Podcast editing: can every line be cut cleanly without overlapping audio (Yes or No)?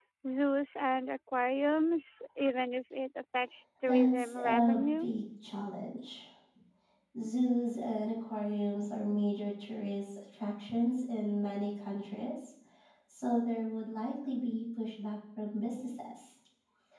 No